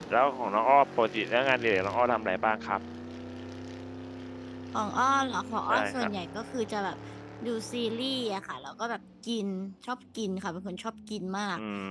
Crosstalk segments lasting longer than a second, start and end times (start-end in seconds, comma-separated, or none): none